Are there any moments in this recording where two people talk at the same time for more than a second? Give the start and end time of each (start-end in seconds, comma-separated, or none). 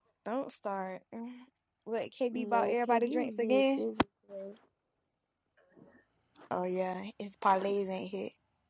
2.3-3.8